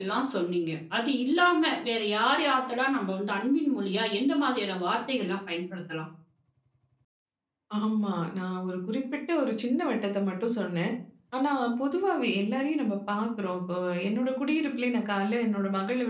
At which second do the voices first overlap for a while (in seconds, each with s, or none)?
none